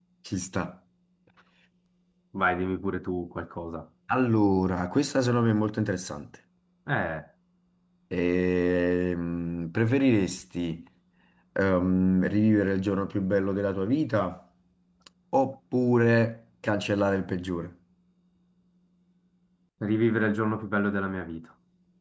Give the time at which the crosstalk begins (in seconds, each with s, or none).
none